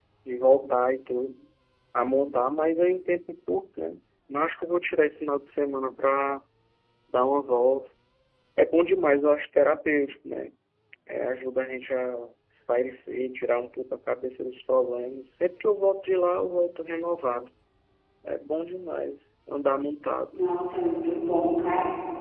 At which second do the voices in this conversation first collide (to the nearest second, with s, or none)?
none